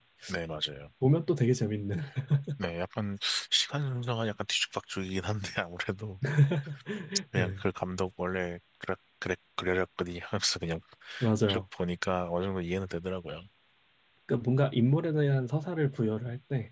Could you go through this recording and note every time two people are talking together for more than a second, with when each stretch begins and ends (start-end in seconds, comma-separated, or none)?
none